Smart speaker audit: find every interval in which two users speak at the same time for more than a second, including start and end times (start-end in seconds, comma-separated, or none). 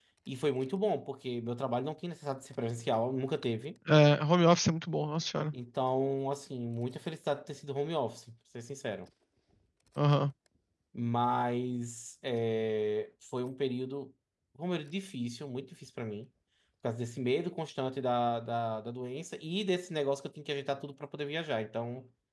none